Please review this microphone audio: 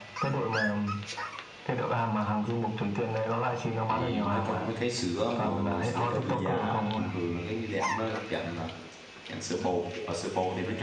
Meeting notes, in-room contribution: present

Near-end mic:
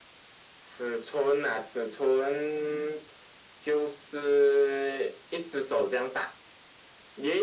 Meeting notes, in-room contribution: none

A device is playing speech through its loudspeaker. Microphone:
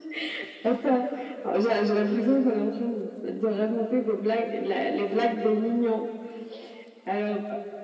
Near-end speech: none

